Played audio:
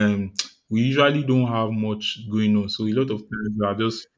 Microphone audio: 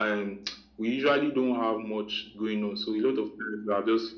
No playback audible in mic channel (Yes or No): No